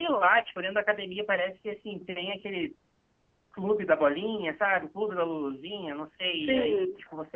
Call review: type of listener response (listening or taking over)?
listening